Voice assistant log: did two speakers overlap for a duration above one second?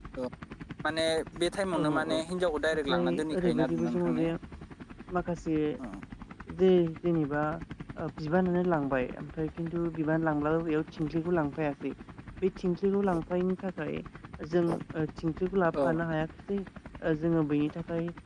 Yes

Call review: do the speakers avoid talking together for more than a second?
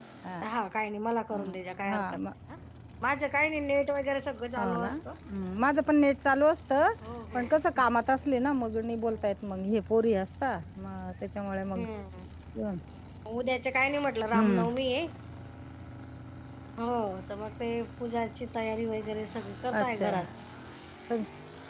Yes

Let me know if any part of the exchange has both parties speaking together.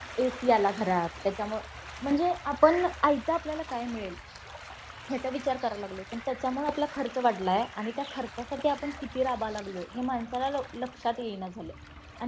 No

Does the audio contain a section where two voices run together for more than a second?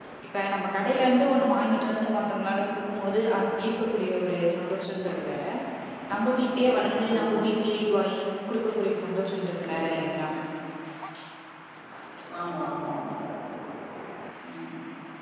No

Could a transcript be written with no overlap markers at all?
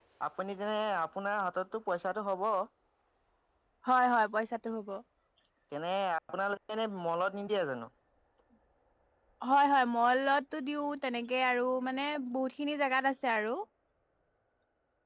Yes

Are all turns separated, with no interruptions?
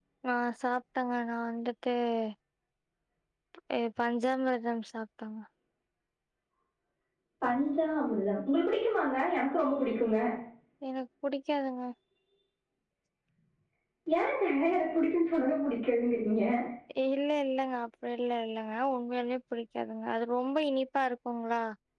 Yes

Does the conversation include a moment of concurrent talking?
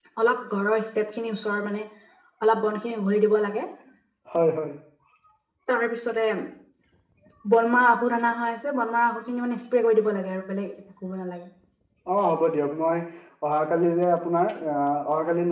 No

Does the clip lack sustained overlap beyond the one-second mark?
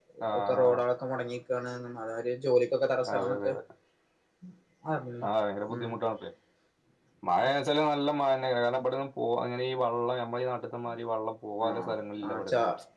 Yes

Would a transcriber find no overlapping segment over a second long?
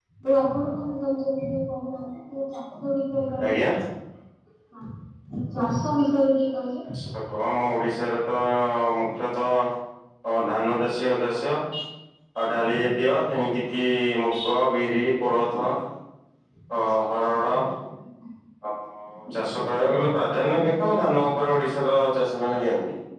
Yes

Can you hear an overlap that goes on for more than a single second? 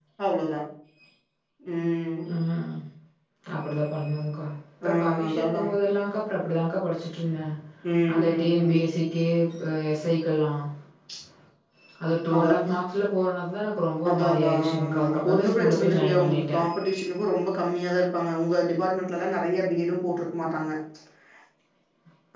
Yes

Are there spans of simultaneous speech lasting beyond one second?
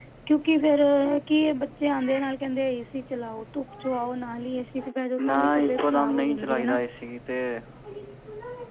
Yes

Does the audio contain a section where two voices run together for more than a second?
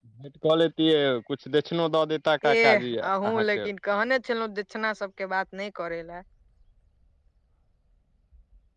Yes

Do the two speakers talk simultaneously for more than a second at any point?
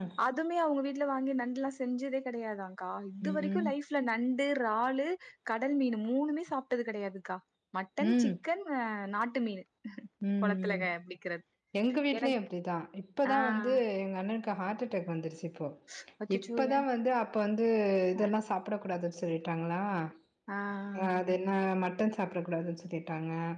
No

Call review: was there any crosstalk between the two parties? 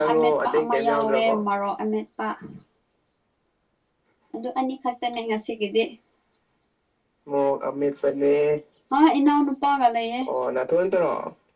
Yes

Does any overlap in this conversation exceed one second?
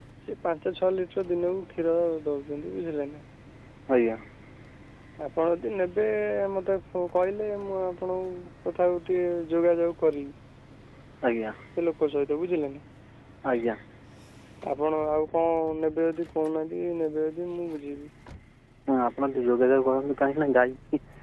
No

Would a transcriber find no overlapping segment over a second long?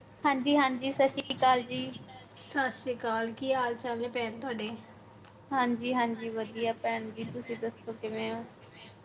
Yes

